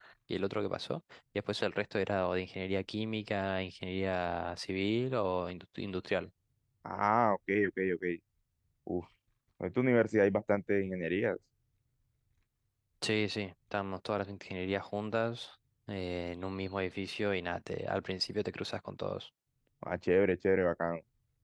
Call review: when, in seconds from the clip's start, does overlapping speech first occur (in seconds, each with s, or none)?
none